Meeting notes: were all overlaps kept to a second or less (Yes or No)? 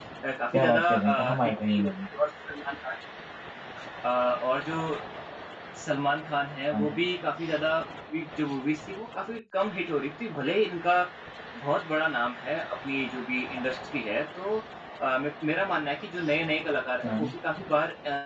No